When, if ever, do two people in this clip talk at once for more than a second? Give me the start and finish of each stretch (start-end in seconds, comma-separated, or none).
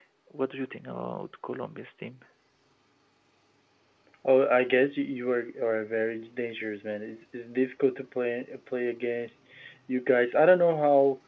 none